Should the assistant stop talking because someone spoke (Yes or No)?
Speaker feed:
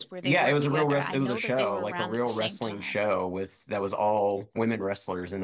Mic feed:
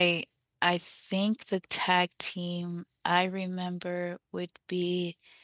Yes